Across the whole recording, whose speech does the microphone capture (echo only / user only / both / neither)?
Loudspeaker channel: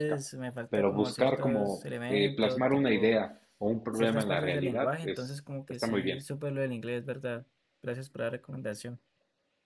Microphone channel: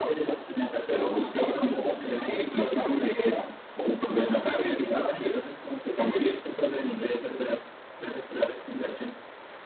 echo only